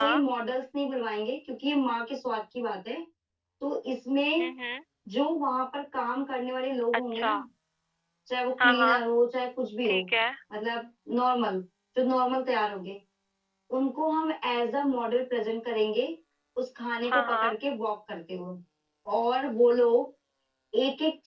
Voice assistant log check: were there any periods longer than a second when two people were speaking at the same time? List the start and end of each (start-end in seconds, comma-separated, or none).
none